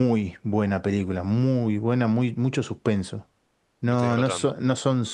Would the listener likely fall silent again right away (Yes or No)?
Yes